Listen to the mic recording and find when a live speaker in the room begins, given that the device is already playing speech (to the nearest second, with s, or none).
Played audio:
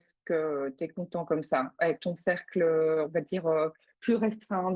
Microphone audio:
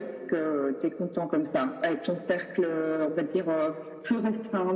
none